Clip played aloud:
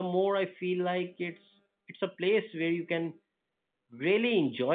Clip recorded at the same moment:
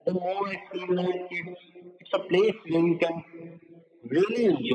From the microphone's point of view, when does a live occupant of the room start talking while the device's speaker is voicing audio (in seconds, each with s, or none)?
none